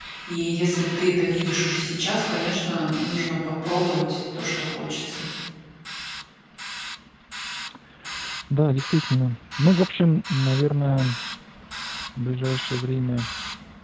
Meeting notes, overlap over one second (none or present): none